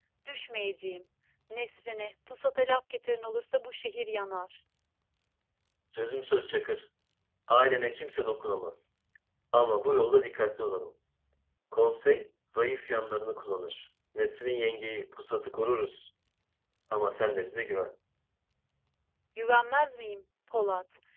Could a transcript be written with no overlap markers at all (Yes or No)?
Yes